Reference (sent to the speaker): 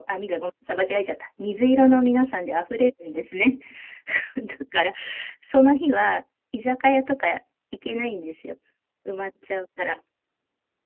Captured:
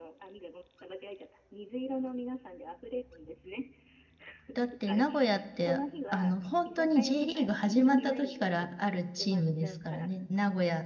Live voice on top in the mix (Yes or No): Yes